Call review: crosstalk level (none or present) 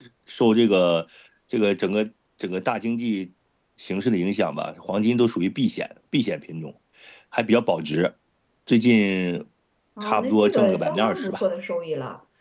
present